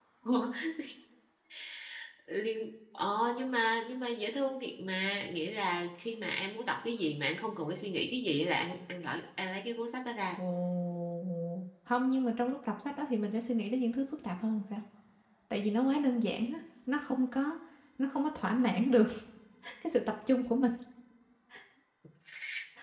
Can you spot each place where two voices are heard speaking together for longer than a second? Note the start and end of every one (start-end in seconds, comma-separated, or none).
none